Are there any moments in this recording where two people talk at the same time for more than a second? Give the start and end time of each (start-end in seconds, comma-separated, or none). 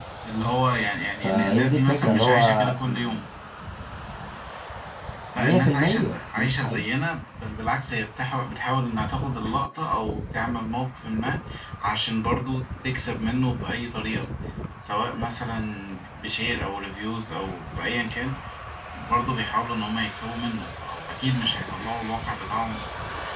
1.2-3.2, 5.4-6.8